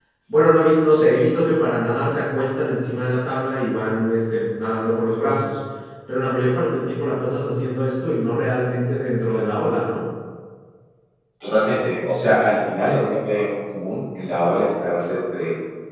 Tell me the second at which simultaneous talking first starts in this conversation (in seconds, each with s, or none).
none